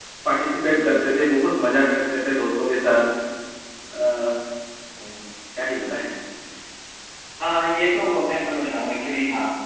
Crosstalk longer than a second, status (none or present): none